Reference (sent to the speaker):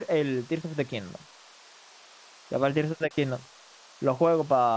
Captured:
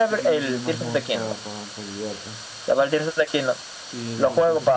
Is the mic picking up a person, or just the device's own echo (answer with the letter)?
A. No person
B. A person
B